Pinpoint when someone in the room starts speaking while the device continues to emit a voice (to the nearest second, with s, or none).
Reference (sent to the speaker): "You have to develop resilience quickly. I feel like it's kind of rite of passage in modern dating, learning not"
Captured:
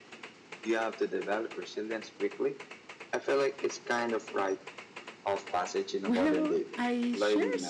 6 s